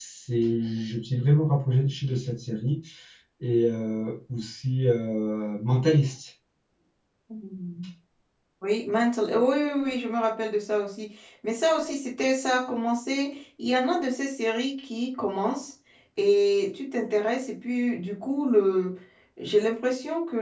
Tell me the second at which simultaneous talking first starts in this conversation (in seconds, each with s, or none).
none